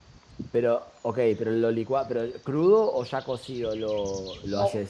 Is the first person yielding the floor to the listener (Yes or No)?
Yes